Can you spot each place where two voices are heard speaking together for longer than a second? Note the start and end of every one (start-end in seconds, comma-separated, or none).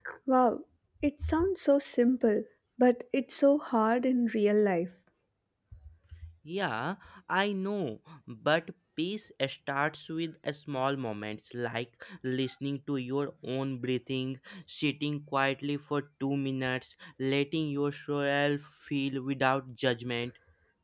none